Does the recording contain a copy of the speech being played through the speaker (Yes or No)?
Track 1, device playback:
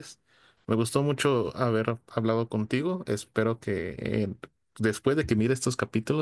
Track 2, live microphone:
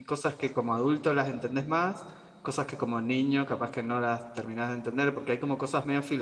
No